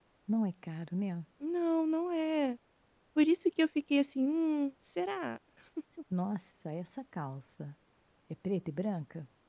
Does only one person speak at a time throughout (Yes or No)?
Yes